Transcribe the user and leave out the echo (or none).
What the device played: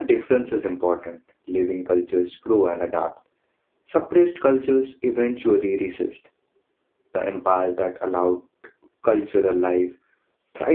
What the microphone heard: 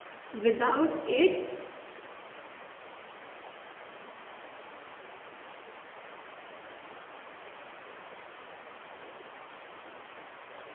Without it,